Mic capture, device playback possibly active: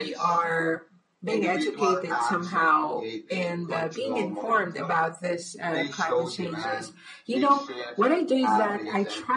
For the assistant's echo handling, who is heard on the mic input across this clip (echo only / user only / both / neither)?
echo only